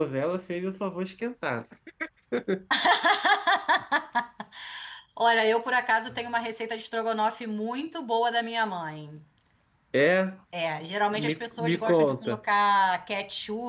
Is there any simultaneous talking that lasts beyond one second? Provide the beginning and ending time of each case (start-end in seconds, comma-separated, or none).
11.1-12.4